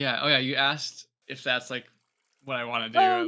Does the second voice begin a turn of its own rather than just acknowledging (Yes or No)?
Yes